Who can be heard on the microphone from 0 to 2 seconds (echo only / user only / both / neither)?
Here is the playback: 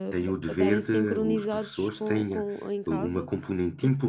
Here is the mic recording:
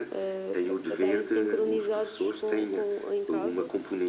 echo only